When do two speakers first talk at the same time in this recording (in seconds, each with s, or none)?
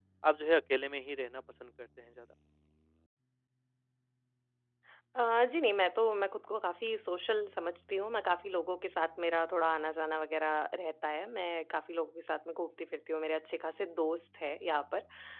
none